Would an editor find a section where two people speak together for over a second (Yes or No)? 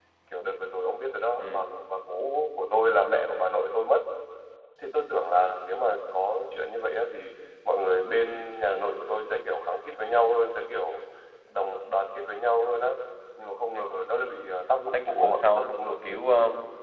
Yes